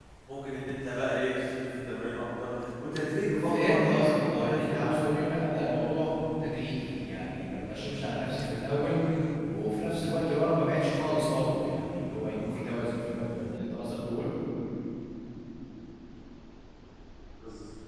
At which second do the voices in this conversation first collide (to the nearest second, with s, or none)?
3 s